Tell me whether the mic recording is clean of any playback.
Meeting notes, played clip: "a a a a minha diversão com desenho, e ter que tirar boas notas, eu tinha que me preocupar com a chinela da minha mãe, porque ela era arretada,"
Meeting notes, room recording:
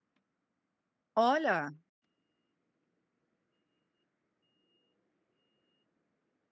Yes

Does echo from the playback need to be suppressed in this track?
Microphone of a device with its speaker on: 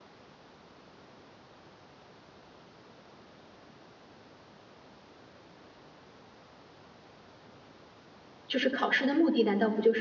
No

